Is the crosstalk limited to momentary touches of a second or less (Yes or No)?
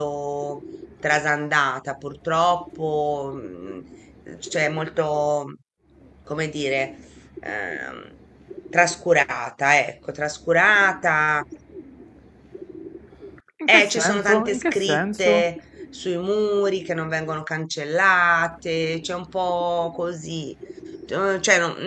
No